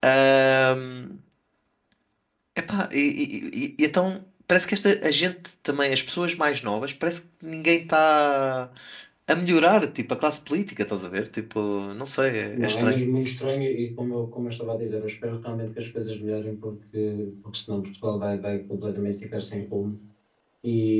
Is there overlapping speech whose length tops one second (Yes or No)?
No